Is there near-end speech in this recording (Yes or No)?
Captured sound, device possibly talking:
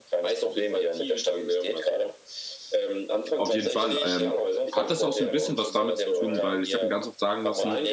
Yes